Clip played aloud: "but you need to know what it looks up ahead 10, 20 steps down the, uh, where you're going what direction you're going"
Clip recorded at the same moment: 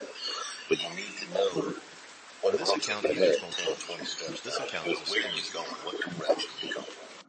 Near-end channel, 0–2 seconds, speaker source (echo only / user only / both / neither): echo only